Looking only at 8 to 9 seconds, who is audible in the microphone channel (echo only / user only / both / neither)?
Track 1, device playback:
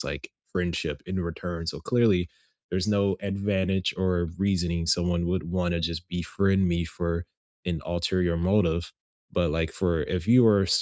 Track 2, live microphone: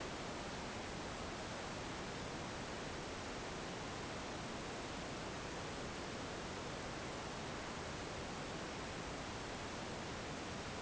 neither